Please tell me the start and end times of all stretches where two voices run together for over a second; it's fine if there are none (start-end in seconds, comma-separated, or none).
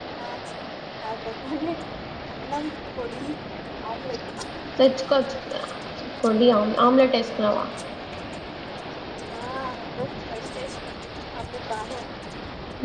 none